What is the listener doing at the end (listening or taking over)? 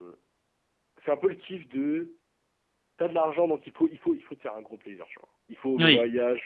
listening